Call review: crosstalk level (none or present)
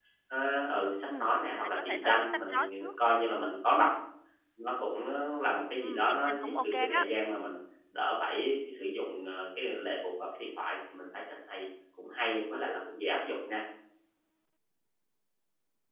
present